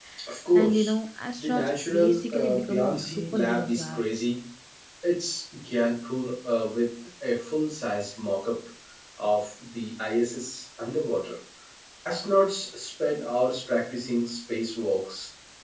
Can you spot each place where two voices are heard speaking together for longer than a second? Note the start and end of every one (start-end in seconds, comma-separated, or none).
1.4-4.0